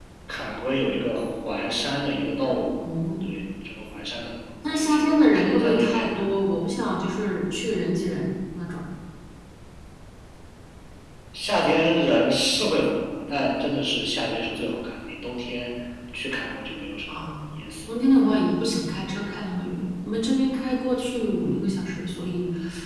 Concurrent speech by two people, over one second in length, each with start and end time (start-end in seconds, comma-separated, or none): 4.8-6.3